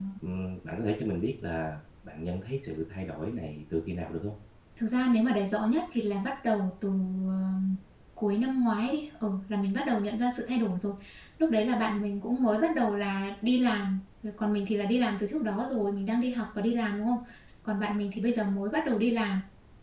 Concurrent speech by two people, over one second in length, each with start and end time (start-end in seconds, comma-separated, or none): none